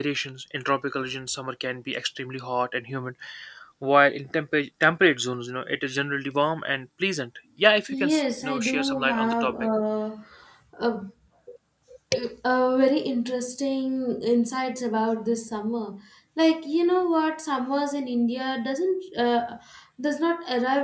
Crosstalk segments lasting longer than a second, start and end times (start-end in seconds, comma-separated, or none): 7.9-9.5